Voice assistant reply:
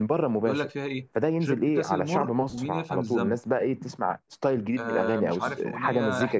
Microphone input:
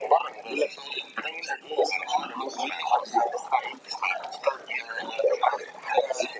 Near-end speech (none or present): none